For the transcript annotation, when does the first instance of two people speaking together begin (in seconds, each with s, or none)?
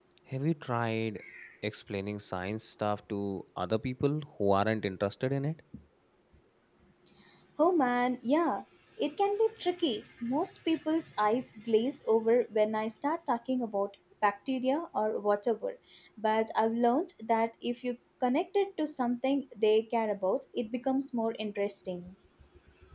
none